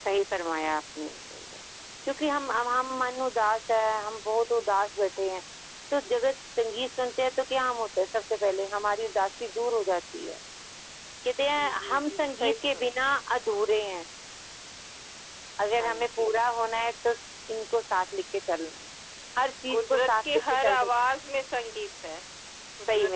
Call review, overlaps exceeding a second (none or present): present